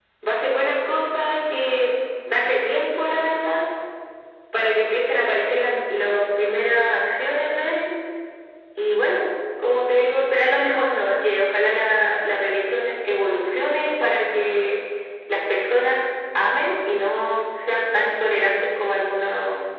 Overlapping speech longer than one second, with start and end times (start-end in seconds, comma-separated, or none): none